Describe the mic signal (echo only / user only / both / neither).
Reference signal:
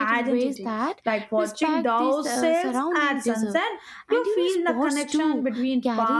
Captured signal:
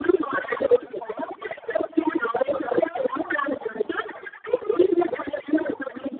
echo only